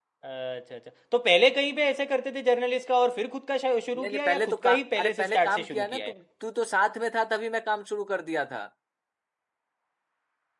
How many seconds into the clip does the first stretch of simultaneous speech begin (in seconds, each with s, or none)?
4.0 s